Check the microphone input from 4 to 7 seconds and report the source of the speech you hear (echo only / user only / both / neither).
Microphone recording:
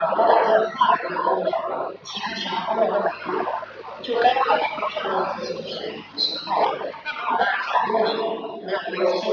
echo only